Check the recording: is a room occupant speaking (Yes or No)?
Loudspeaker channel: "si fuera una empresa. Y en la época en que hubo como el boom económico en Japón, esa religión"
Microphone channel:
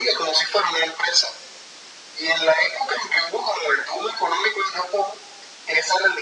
No